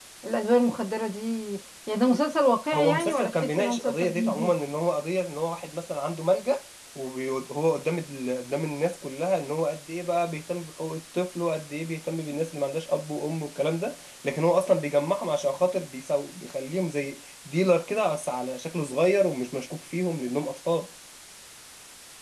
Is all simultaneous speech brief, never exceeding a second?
No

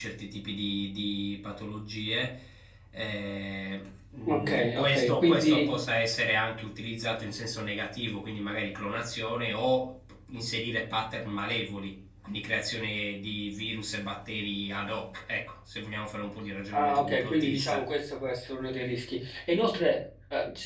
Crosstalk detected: Yes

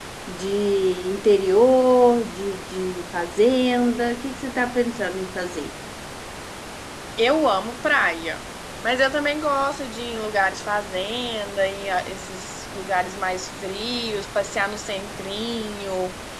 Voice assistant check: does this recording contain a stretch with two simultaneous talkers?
No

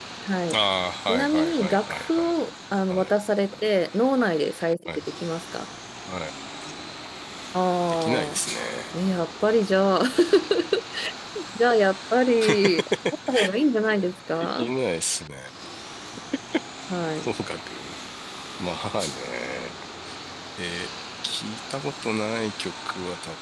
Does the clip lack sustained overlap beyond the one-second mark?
No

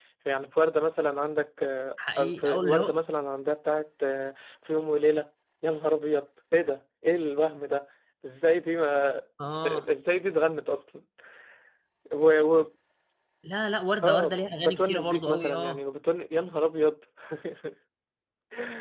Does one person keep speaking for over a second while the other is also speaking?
Yes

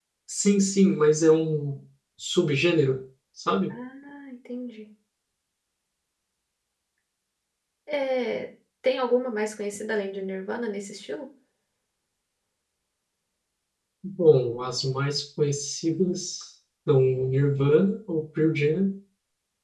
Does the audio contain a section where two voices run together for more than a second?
No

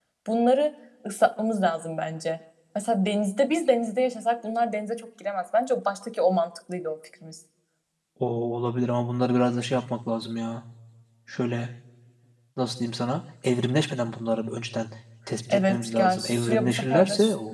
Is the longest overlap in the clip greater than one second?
Yes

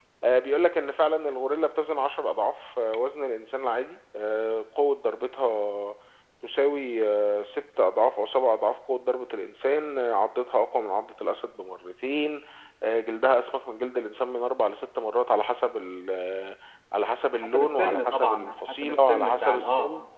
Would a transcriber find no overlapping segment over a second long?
No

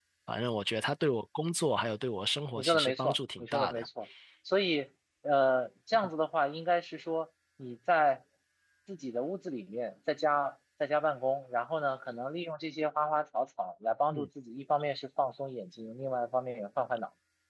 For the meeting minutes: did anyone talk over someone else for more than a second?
Yes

